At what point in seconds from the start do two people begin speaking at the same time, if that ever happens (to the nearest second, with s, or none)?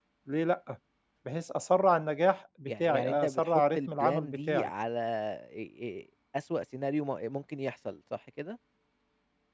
3 s